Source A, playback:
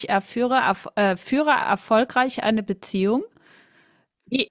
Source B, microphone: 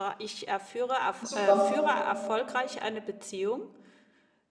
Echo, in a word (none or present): present